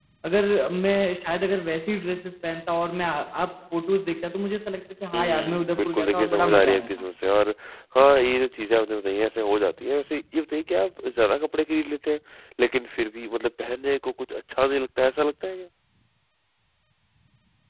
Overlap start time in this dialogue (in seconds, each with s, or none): 5.1 s